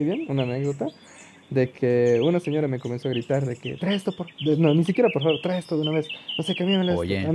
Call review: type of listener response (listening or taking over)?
listening